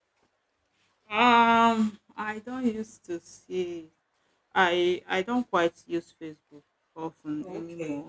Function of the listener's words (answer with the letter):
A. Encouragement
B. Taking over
B